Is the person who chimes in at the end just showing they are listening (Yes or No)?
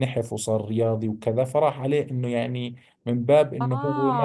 No